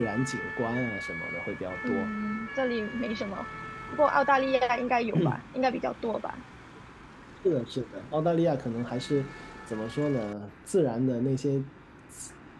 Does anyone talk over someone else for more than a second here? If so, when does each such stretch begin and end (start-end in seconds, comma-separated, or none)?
none